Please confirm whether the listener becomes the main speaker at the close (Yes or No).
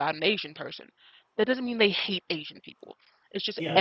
No